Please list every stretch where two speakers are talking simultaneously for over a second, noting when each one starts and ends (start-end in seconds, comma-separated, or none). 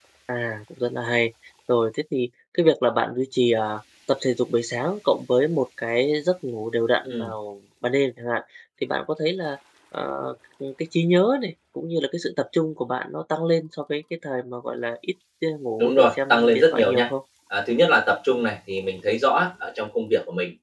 15.8-17.1